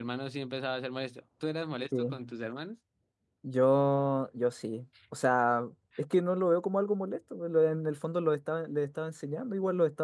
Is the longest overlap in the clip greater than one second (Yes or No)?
No